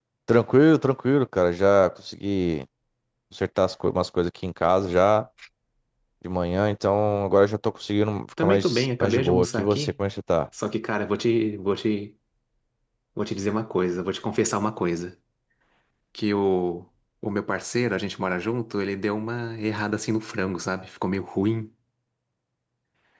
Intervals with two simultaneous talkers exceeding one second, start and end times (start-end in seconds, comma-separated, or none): 8.4-9.9